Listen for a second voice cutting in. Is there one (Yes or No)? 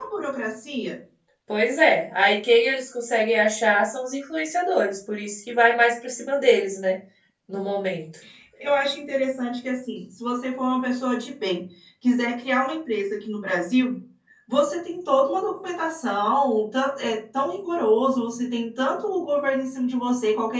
No